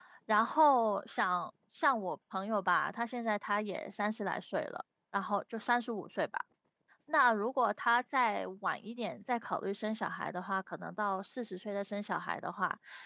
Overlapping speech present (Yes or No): No